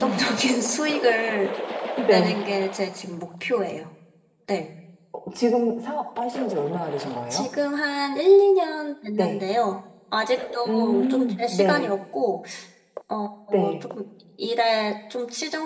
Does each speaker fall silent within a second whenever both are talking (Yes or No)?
No